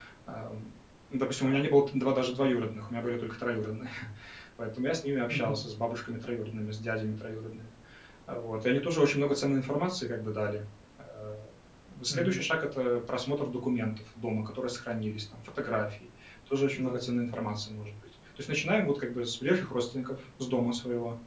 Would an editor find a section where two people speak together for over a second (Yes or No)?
No